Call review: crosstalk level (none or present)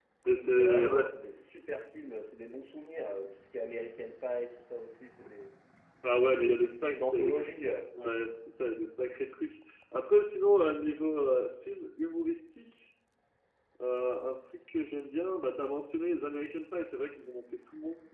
present